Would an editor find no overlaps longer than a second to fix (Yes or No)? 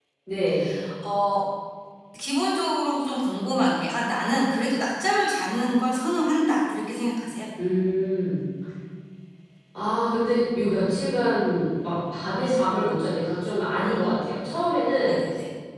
Yes